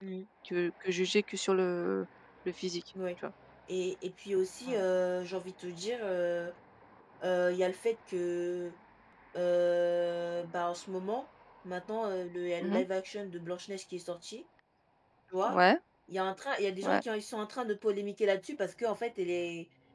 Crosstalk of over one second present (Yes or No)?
No